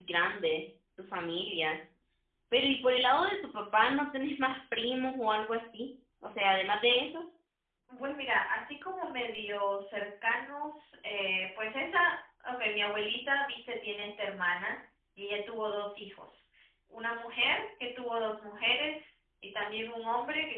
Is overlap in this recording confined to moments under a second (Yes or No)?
Yes